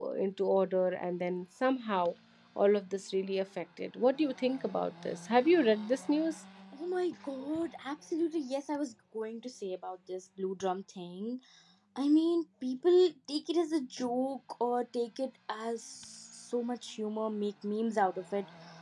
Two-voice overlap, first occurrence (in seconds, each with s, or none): none